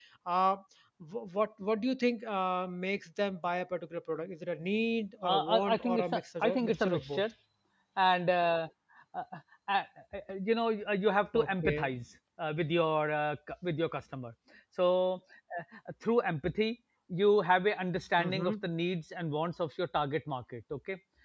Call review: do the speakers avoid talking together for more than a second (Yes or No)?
No